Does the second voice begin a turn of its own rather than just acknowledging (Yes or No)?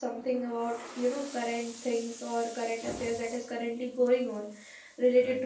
No